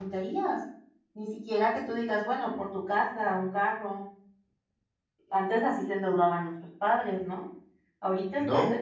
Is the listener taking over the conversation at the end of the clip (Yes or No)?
No